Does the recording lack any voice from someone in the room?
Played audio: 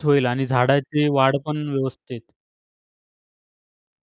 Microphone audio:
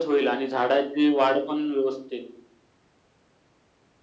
Yes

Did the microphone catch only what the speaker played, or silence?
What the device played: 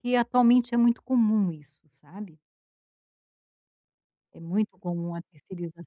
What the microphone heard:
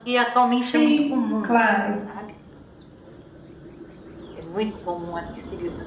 No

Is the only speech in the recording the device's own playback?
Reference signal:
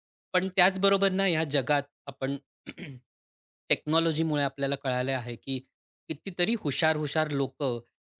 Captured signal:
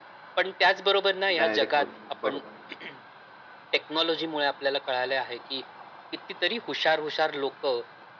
No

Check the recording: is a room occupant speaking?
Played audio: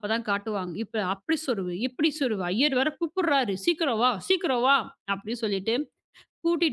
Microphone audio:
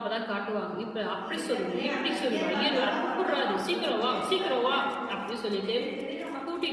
Yes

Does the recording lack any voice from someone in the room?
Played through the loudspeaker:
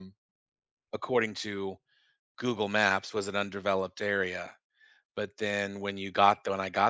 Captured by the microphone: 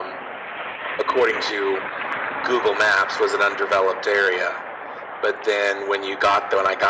Yes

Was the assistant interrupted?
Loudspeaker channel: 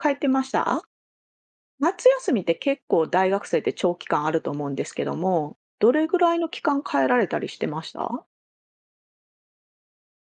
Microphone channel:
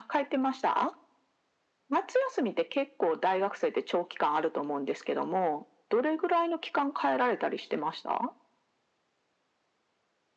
No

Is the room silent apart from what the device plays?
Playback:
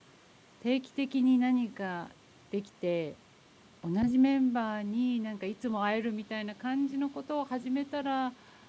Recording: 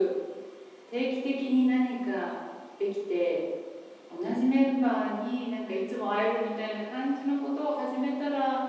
Yes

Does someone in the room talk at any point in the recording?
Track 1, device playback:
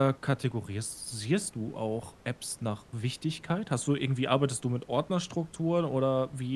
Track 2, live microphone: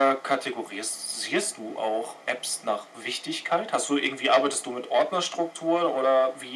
No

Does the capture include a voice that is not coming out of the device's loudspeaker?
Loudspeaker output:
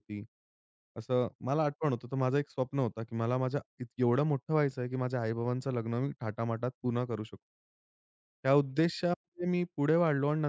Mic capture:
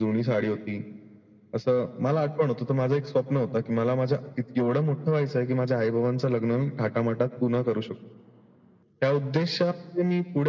No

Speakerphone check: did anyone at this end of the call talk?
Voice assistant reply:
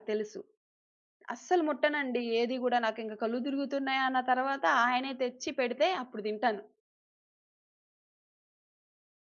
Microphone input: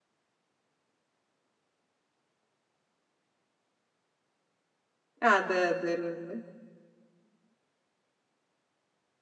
Yes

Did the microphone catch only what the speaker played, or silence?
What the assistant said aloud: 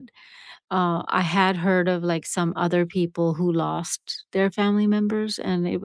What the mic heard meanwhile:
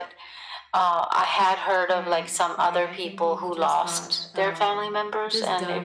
No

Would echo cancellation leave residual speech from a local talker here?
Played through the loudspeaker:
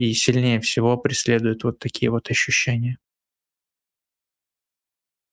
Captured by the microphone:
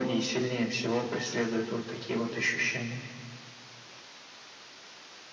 No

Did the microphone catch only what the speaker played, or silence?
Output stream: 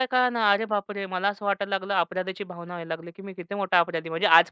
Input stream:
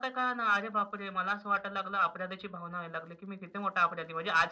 Yes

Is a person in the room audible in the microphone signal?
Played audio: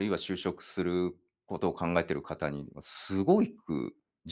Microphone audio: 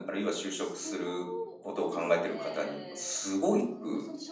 Yes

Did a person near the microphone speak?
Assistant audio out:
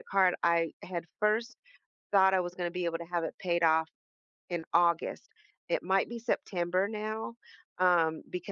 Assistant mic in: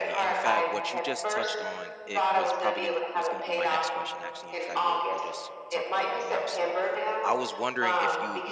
Yes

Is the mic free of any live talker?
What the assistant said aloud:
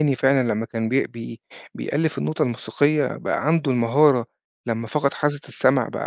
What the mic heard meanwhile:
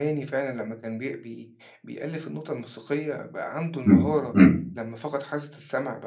No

